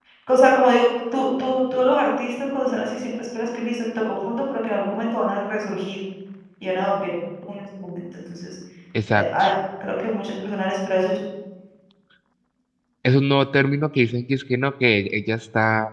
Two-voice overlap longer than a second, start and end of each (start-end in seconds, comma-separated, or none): none